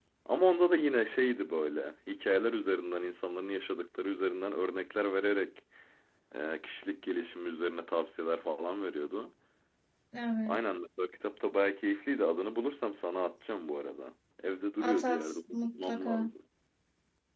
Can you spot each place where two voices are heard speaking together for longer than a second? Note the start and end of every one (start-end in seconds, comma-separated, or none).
14.8-16.3